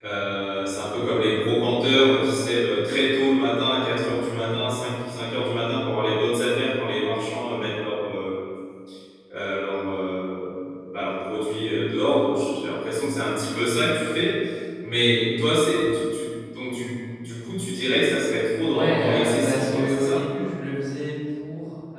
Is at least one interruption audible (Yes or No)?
Yes